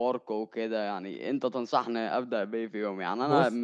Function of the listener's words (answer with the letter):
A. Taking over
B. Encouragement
B